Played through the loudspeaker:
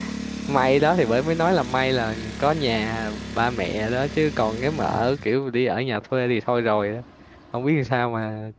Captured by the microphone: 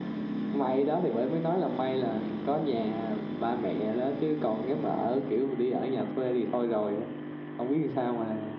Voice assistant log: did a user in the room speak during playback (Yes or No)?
No